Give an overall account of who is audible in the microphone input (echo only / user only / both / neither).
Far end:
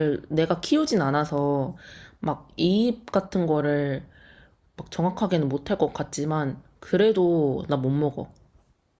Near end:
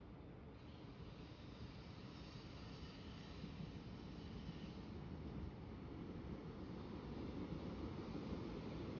neither